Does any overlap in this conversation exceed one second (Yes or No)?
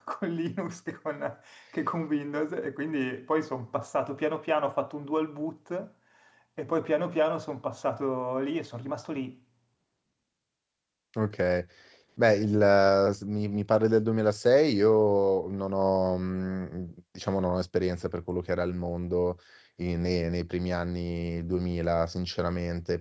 No